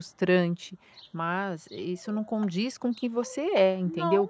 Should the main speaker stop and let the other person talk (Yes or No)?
No